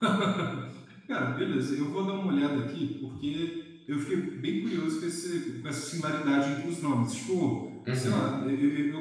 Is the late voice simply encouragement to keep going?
Yes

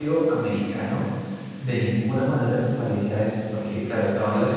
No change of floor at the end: Yes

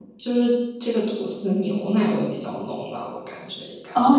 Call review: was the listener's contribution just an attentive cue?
No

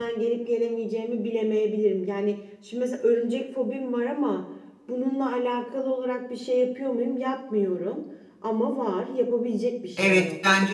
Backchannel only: No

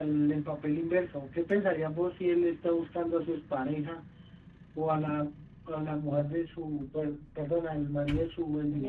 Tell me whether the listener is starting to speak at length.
No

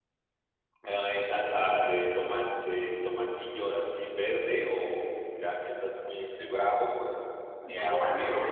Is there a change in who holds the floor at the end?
Yes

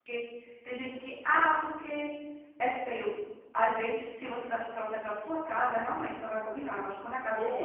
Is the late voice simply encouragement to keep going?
No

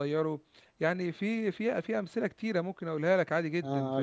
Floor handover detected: Yes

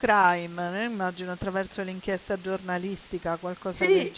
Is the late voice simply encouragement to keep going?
No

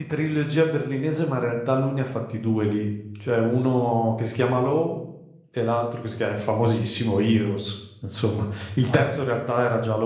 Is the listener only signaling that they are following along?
Yes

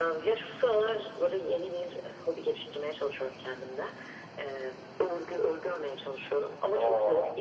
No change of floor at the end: Yes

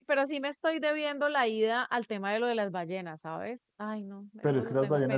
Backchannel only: No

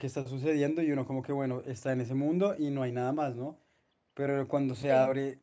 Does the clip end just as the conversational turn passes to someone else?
No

